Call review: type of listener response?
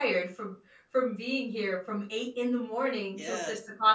listening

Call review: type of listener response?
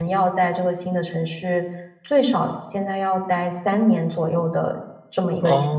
taking over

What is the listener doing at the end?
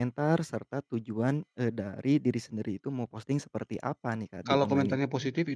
taking over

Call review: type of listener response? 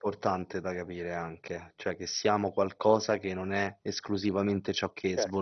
taking over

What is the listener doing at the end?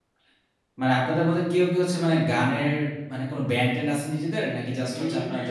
taking over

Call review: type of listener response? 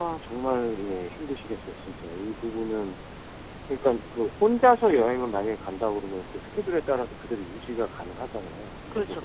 listening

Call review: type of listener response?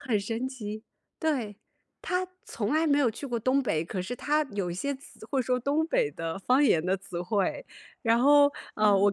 listening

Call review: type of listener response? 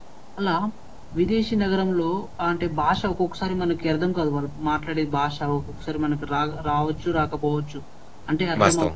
listening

